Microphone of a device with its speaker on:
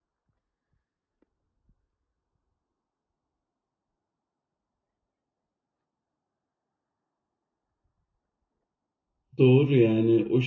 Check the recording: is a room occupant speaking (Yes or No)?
Yes